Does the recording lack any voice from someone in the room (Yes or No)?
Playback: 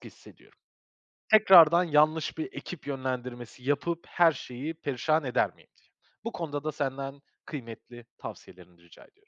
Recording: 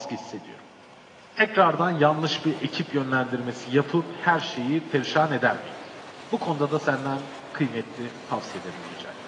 Yes